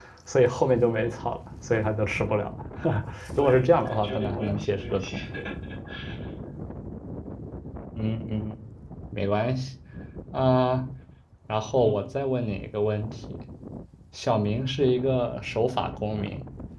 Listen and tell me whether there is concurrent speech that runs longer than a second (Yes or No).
Yes